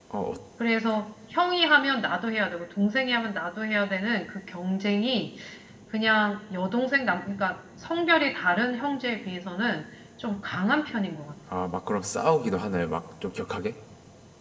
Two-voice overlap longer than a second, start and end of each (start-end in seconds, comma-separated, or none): none